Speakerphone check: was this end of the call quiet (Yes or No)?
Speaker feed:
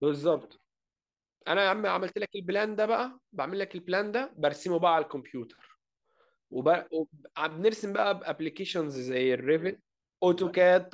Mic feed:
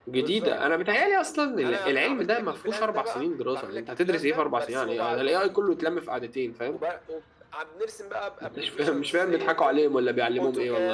No